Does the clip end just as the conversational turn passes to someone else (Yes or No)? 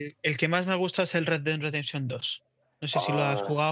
Yes